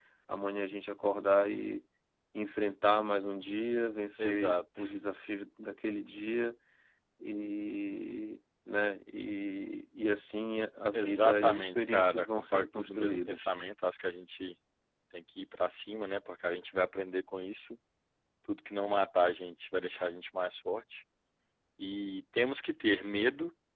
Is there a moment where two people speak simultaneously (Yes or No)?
Yes